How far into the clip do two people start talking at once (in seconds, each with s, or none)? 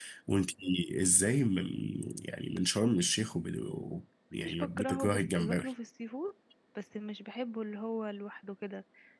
4.4 s